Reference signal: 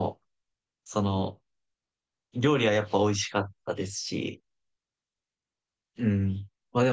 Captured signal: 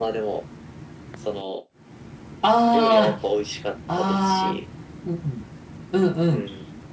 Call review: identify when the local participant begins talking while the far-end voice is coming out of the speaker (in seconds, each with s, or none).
2.4 s